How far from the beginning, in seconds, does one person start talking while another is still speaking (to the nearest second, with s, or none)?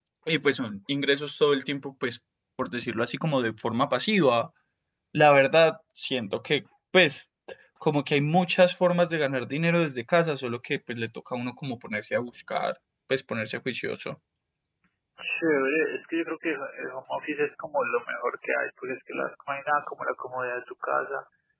none